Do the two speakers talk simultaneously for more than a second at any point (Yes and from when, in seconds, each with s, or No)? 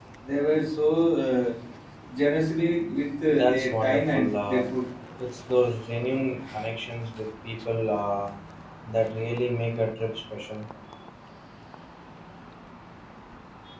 Yes, from 3.3 s